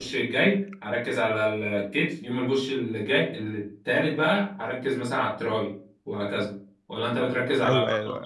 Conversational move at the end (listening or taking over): taking over